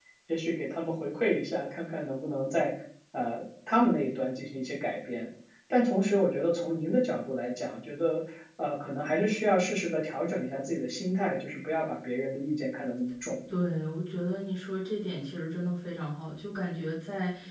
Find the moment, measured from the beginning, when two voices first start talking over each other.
none

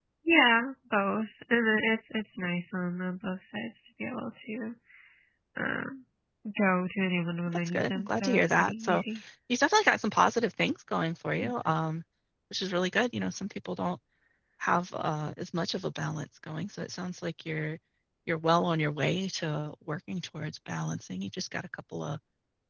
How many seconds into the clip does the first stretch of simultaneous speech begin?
7 s

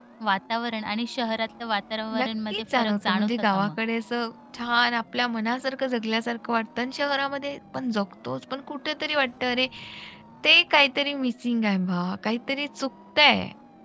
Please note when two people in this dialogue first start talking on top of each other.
2 s

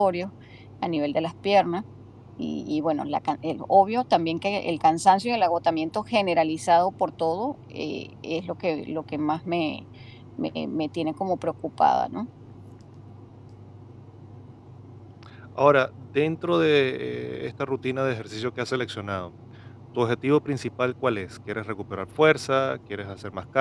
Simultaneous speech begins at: none

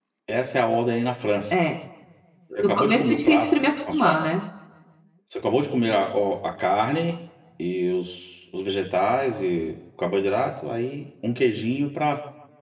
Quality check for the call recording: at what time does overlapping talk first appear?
3 s

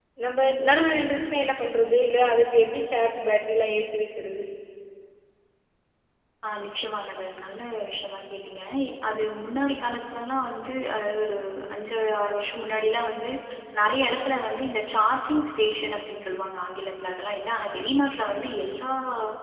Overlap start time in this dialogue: none

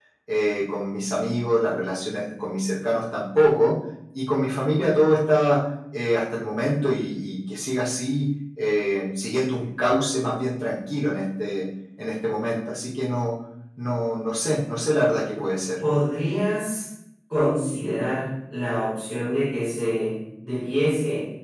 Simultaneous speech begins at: none

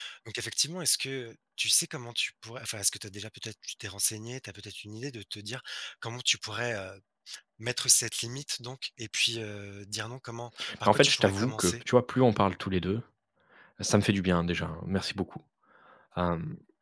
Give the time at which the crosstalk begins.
11 s

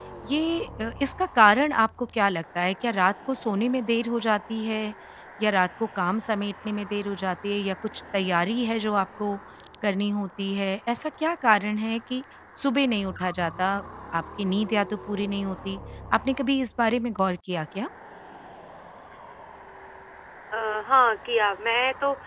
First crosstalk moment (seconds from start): none

